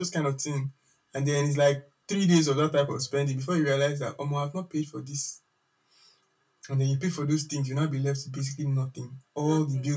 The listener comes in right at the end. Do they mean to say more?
No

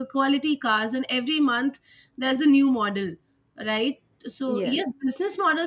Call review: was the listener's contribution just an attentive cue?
Yes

